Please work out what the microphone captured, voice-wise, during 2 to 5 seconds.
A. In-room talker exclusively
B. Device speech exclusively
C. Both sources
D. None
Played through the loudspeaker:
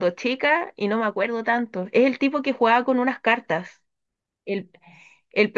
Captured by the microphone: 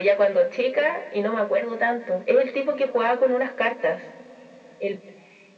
B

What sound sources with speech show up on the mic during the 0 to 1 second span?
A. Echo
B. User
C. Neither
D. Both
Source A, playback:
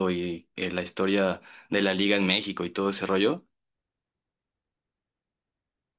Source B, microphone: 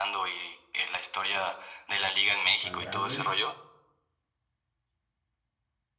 A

